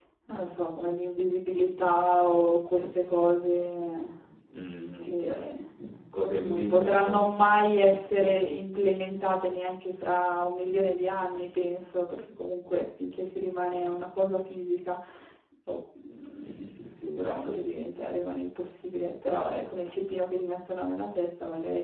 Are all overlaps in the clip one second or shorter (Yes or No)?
No